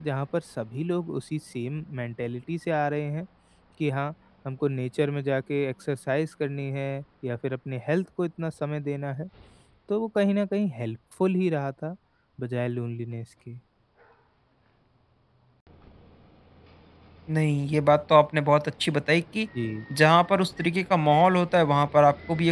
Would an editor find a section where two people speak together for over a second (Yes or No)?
No